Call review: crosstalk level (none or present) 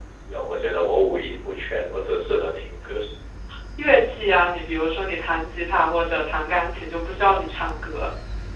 none